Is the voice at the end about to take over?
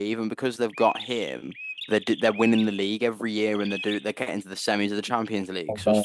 No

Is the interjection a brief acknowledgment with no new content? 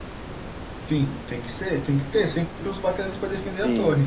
No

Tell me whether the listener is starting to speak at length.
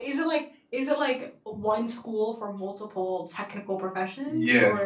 Yes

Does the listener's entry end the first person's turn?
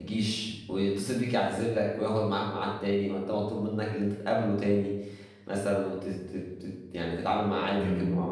No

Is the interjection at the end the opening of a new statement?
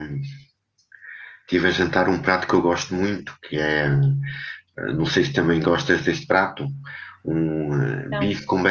No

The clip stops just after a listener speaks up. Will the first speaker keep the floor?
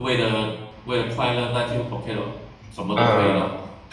No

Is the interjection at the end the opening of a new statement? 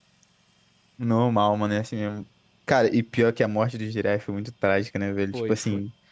No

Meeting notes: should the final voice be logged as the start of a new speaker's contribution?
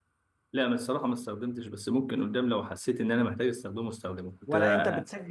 Yes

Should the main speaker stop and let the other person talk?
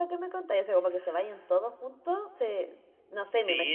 Yes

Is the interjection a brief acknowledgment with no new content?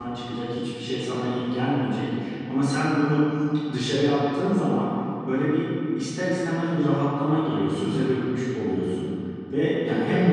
Yes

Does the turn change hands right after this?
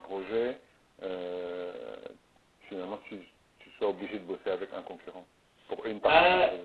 Yes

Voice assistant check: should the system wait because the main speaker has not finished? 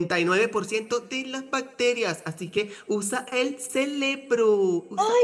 No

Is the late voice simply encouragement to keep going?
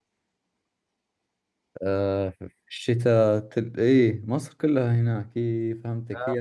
Yes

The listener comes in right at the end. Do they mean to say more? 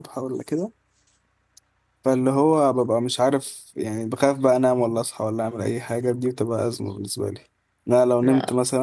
No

